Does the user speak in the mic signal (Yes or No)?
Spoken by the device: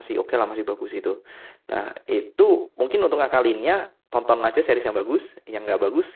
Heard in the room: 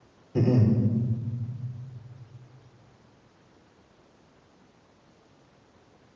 Yes